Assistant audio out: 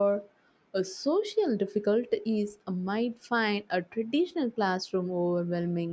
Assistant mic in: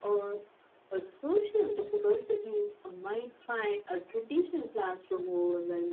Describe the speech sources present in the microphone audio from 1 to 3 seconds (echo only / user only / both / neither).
echo only